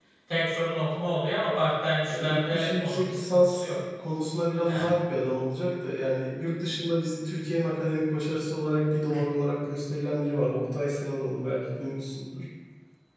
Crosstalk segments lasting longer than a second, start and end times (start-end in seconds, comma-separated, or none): 2.1-3.8